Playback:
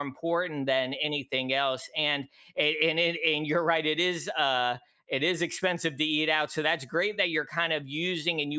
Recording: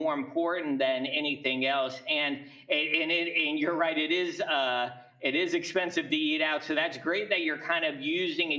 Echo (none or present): present